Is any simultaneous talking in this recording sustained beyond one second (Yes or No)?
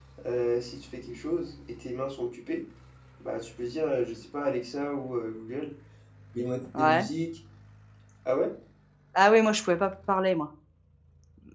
No